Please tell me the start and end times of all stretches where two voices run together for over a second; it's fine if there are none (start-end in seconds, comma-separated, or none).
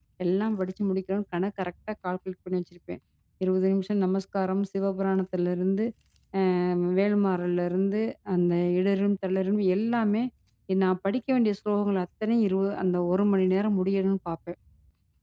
none